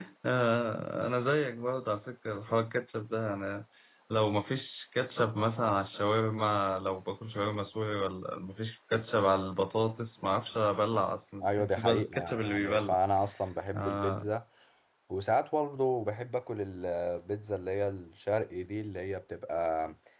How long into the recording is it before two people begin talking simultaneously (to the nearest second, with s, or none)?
11 s